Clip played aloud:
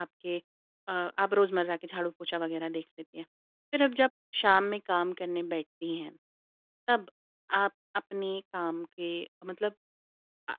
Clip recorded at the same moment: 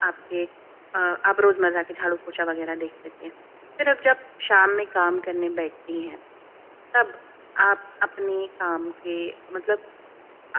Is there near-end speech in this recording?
No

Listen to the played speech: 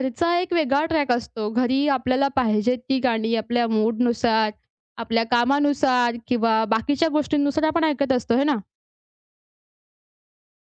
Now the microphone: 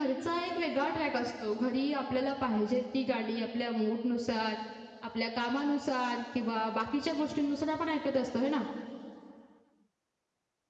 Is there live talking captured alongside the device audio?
No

